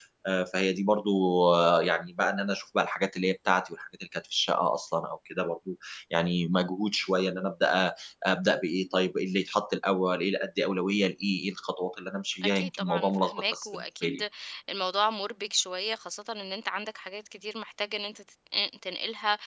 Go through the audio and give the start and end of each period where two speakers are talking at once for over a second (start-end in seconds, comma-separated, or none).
12.4-14.2